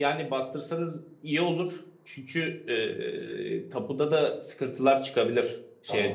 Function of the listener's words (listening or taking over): listening